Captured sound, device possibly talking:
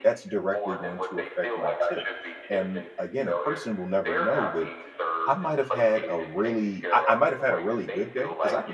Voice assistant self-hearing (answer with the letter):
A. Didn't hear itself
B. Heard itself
B